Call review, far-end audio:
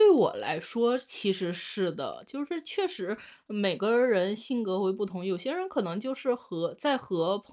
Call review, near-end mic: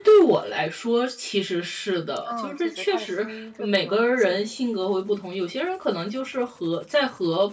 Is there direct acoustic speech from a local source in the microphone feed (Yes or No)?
Yes